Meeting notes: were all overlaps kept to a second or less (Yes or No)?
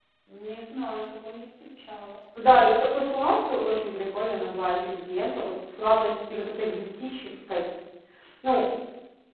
Yes